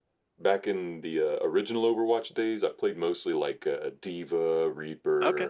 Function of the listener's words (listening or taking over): listening